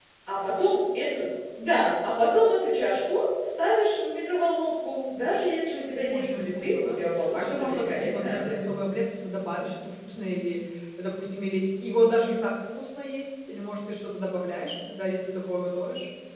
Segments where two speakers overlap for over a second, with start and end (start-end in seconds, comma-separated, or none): 6.1-8.6